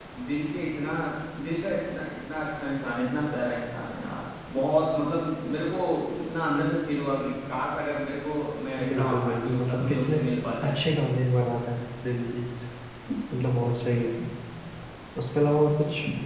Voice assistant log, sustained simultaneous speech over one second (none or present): present